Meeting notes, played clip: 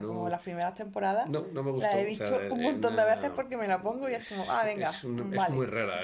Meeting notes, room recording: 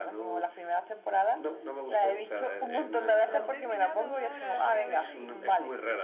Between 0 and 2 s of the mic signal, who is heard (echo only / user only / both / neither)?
echo only